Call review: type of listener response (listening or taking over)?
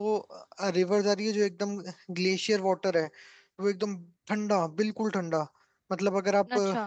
listening